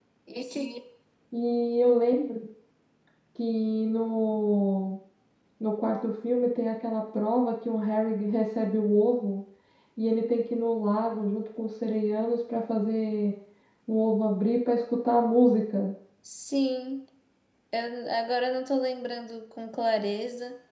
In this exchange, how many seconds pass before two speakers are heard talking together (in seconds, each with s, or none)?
none